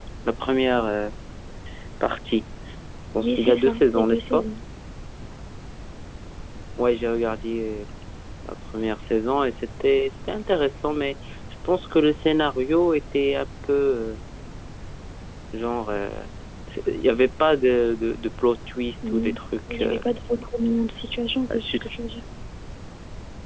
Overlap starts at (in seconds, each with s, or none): 3.2 s